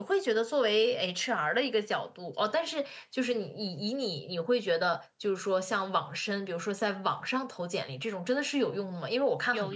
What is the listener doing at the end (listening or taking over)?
listening